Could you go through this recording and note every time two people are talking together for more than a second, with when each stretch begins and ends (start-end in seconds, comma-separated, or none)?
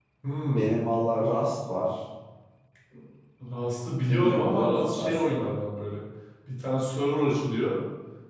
4.1-5.4